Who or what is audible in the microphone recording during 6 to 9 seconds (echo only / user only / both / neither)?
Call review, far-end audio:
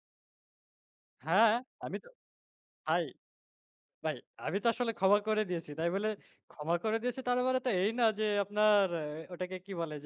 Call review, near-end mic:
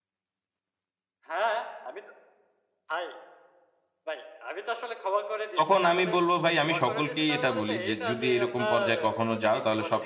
both